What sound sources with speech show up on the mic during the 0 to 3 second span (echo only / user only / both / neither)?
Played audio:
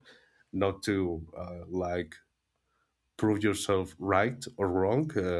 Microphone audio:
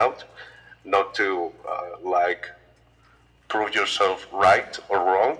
echo only